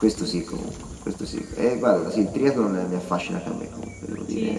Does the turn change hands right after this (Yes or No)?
Yes